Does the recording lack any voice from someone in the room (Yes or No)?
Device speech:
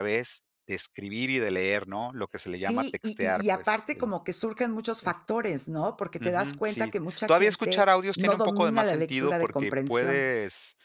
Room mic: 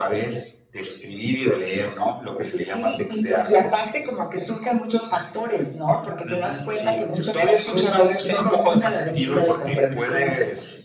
Yes